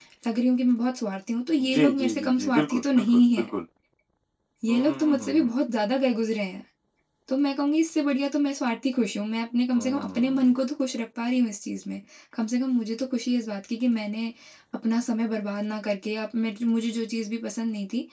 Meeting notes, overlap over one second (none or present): present